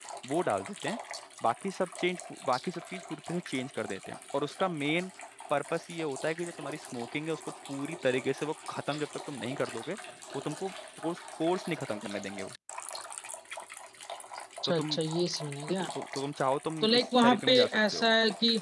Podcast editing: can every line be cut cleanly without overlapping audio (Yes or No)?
No